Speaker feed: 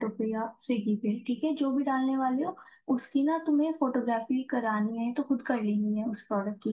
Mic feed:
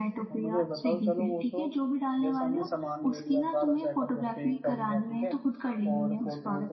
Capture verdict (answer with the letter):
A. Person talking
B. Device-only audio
A